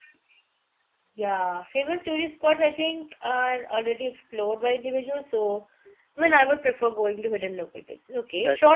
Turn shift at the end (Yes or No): No